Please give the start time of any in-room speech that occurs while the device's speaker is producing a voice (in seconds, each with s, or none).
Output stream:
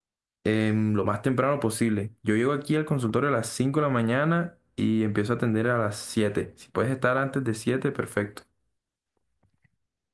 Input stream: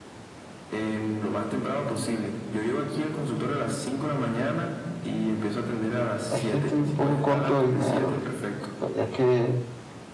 6.3 s